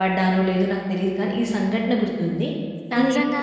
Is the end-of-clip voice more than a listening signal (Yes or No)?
Yes